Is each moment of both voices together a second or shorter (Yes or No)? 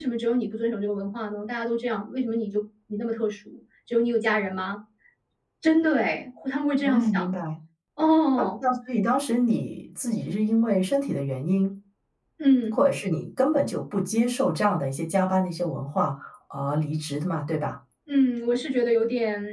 Yes